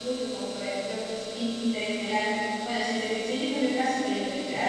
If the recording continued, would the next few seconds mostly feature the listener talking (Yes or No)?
Yes